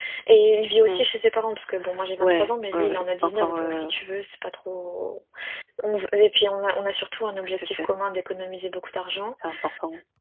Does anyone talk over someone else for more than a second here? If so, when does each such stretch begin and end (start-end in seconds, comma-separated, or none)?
2.2-3.9